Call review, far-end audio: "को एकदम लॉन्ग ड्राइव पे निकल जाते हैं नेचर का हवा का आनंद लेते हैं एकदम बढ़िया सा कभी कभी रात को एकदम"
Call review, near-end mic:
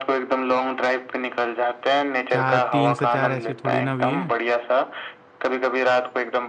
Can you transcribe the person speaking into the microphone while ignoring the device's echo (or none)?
चार तीन से चार ऐसी थोड़ी ना हुई है